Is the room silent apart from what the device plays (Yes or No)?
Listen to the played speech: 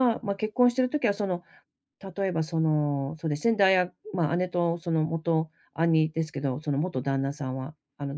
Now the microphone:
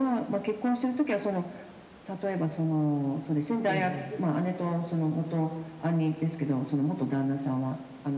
No